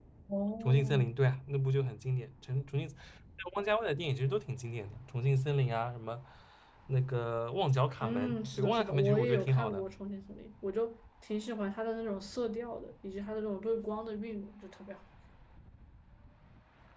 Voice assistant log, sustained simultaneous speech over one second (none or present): present